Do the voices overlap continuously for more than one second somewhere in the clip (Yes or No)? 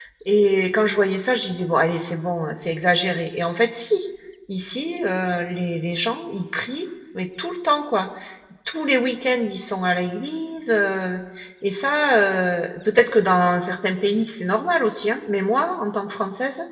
No